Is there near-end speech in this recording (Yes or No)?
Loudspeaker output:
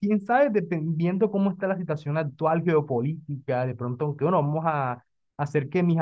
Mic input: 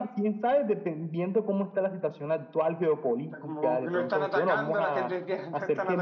Yes